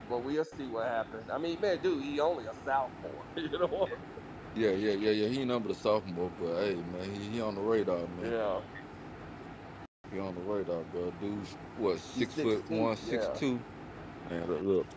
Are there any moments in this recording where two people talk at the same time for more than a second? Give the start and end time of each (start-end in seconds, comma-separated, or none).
12.2-13.4